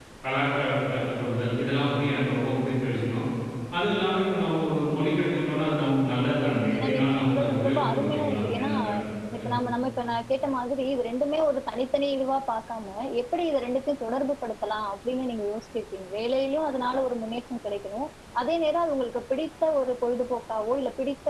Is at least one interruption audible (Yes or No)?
Yes